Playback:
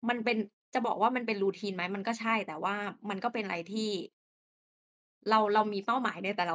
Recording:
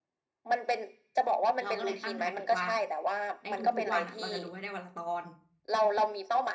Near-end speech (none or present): present